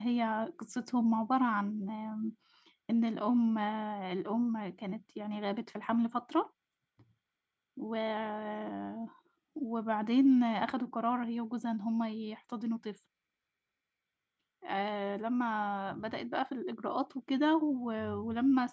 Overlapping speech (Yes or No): No